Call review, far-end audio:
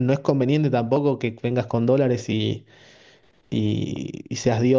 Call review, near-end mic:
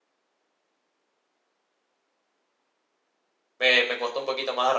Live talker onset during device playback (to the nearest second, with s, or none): 4 s